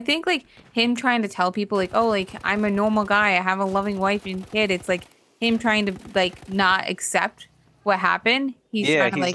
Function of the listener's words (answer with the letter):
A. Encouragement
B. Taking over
B